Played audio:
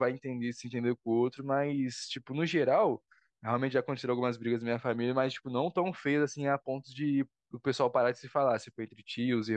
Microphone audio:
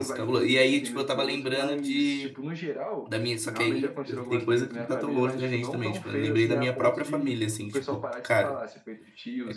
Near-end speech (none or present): present